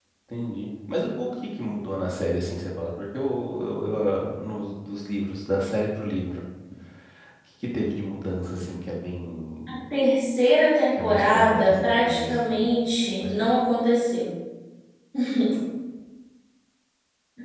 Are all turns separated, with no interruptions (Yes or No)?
No